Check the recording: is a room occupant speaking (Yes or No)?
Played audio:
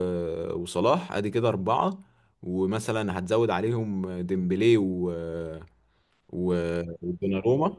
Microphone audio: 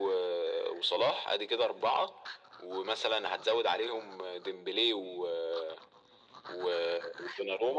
No